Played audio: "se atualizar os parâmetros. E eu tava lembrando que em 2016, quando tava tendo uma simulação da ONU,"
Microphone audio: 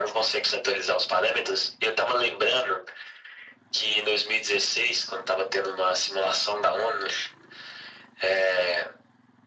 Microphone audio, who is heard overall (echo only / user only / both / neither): echo only